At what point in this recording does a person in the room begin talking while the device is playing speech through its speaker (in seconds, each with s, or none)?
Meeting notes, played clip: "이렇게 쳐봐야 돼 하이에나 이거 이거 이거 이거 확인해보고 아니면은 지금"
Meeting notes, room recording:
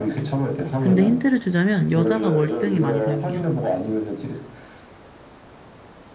0.8 s